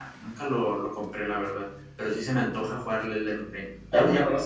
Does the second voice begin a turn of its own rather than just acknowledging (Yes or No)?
Yes